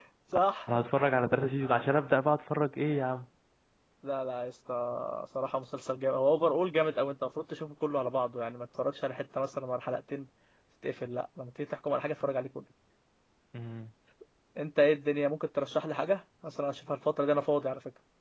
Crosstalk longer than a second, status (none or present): none